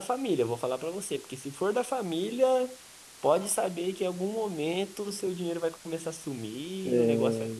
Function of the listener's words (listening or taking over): listening